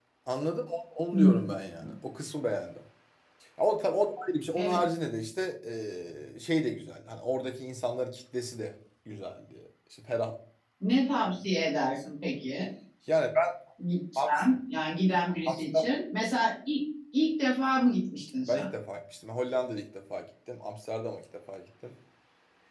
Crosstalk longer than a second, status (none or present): none